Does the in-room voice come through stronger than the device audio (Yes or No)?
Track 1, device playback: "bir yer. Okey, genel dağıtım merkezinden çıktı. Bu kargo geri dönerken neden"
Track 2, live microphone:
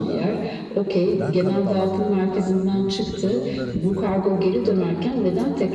No